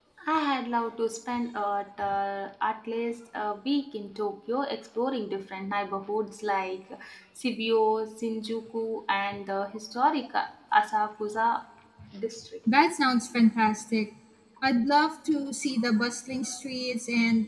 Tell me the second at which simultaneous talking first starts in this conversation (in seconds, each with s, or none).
none